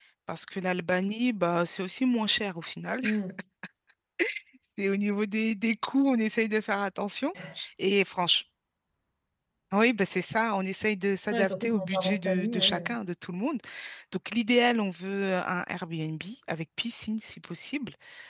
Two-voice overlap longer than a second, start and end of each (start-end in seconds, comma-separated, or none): 11.3-12.9